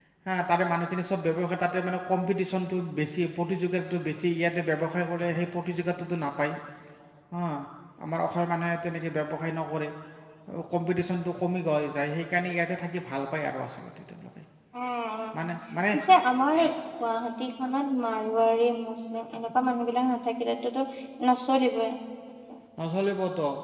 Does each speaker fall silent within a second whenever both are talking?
Yes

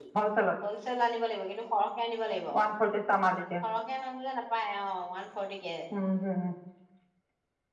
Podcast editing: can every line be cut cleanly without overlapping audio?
Yes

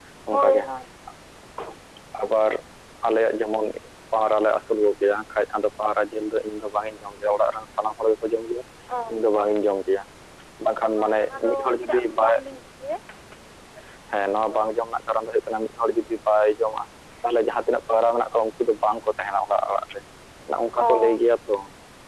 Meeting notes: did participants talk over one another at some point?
Yes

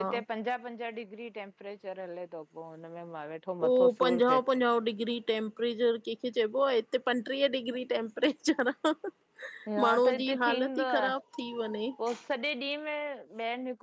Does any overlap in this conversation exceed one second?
Yes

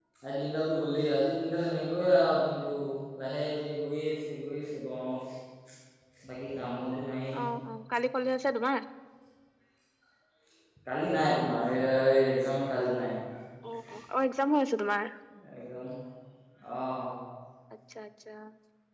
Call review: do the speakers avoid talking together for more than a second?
Yes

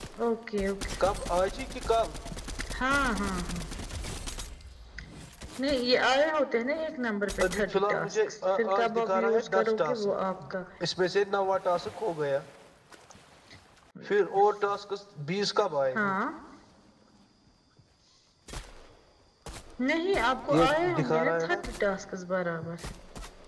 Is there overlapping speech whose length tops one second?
Yes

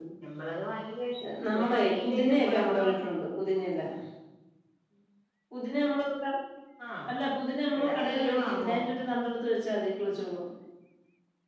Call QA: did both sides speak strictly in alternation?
No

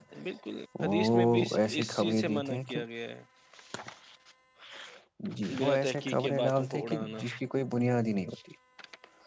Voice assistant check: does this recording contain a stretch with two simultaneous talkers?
Yes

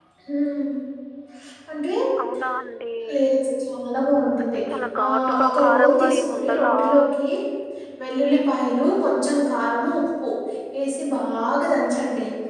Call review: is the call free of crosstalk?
No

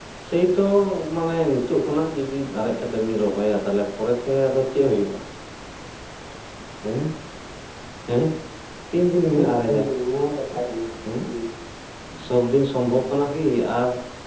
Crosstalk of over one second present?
No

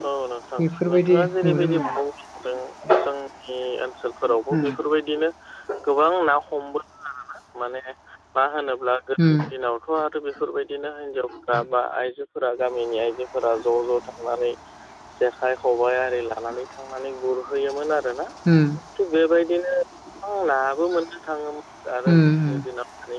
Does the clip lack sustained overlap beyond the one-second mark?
No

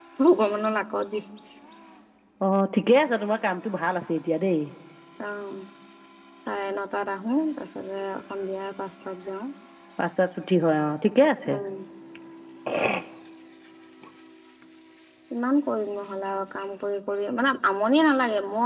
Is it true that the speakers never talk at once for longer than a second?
Yes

